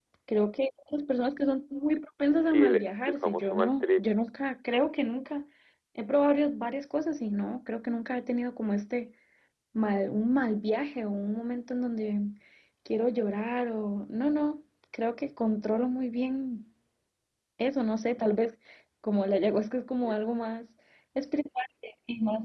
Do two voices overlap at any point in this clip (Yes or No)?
Yes